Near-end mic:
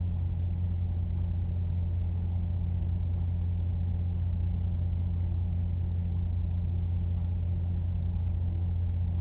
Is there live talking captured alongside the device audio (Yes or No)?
No